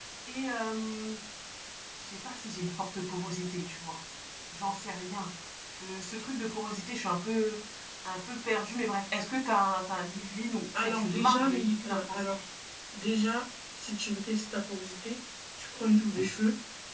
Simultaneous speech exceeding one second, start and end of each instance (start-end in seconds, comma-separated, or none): 10.8-12.4